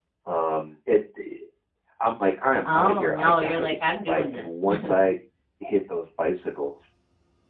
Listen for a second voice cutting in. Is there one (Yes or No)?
Yes